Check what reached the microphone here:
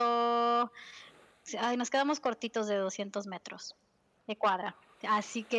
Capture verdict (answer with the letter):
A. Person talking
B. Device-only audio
B